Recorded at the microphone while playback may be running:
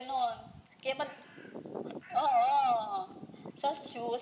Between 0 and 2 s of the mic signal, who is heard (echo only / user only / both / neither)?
echo only